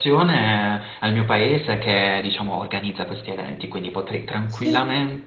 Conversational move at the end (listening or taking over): listening